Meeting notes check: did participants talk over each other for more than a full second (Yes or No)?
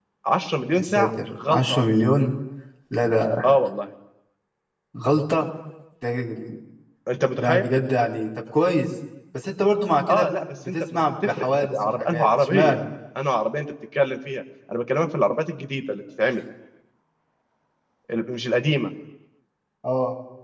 Yes